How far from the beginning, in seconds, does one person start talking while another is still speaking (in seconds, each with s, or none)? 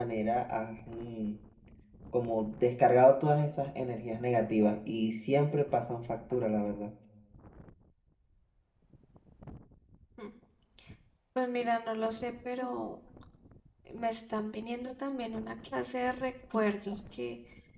none